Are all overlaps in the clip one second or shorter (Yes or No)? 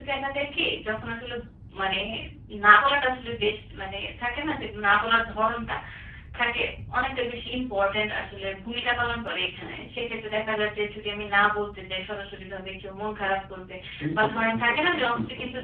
No